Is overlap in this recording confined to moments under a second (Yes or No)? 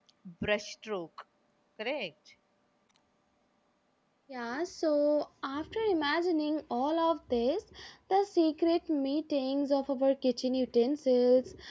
Yes